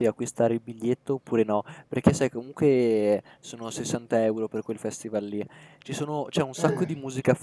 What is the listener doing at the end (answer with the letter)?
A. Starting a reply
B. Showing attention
B